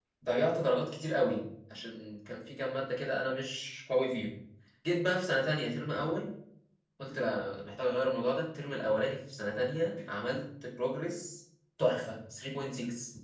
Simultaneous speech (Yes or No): No